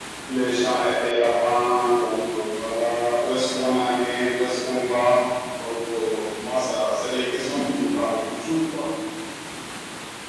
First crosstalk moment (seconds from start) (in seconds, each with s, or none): none